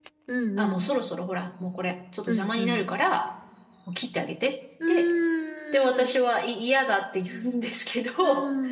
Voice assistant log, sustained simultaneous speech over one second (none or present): none